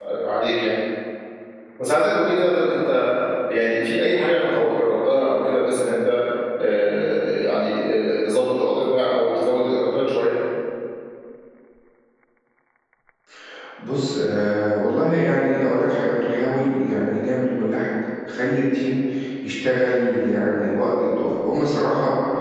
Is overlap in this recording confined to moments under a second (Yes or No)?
Yes